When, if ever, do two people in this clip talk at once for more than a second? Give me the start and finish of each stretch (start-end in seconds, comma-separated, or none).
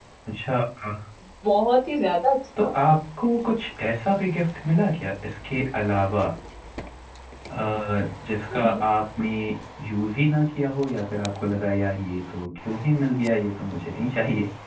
none